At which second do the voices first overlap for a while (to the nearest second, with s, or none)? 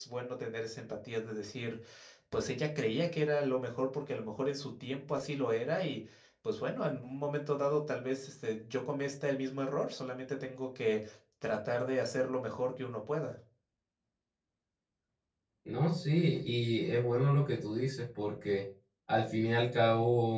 none